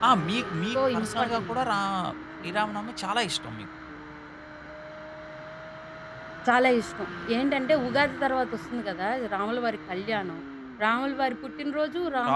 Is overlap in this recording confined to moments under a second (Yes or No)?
No